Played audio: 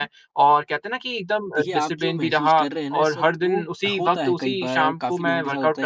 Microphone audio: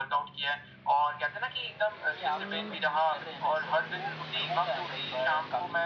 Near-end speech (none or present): none